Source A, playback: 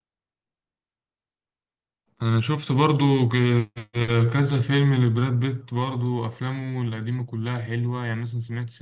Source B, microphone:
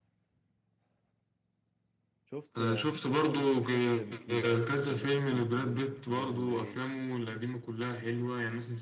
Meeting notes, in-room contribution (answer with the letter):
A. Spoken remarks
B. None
A